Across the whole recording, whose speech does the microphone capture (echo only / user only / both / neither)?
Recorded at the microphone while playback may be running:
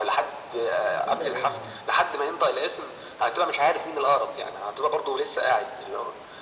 both